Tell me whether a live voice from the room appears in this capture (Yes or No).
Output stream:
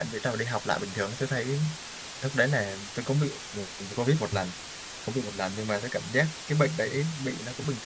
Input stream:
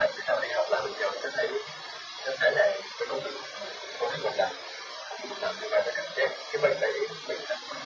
No